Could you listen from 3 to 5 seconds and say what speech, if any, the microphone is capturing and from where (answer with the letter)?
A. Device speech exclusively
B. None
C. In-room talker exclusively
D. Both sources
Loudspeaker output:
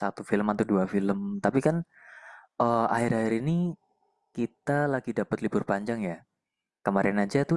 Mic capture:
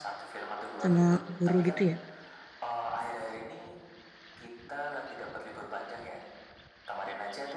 A